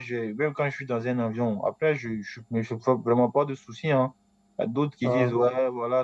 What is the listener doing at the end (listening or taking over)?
listening